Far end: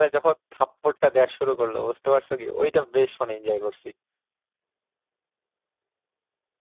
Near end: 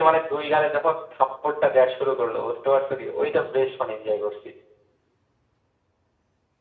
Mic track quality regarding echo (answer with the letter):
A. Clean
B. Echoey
B